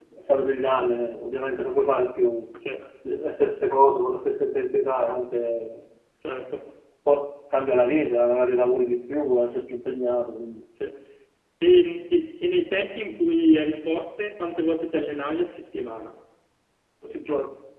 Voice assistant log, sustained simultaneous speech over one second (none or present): none